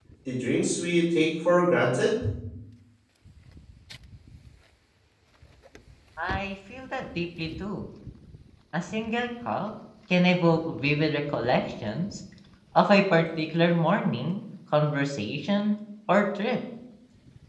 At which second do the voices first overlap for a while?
none

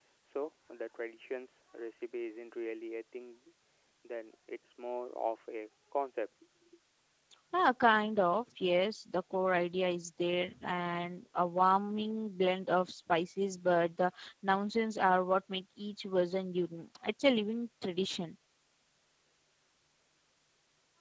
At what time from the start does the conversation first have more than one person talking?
none

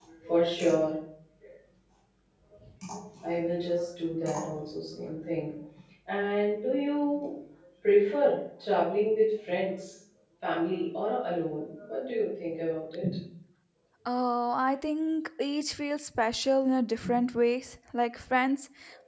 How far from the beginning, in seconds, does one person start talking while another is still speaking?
none

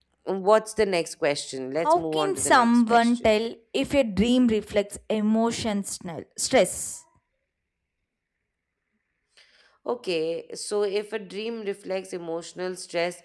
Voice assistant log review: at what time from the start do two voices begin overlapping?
1.8 s

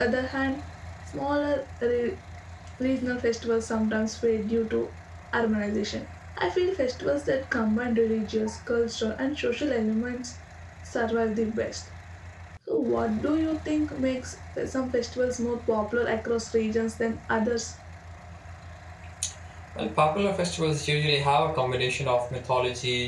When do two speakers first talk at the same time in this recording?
none

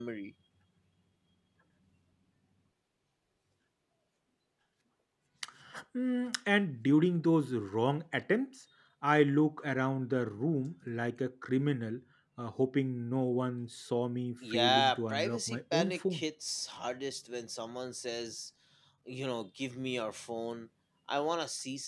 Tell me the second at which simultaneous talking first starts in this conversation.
14.4 s

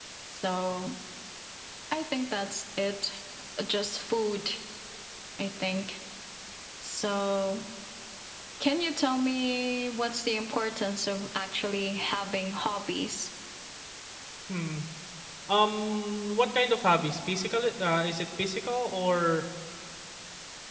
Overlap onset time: none

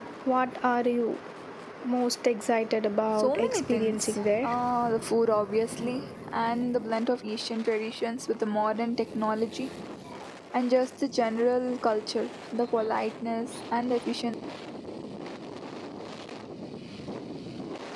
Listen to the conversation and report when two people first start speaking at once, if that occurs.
3.2 s

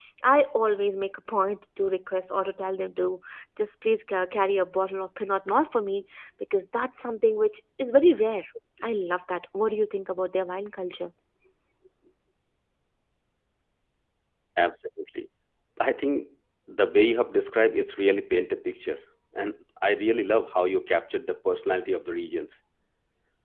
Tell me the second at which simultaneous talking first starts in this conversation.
none

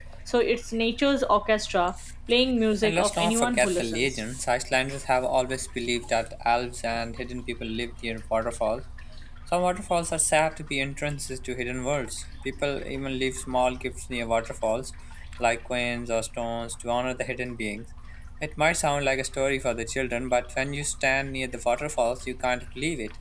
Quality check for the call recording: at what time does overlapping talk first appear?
2.8 s

